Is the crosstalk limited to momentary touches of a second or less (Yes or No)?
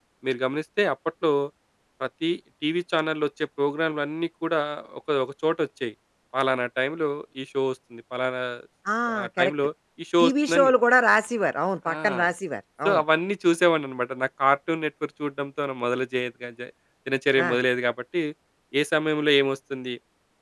Yes